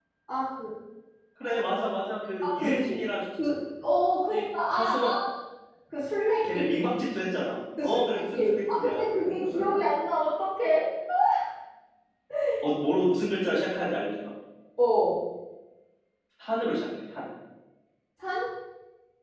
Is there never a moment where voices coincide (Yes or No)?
No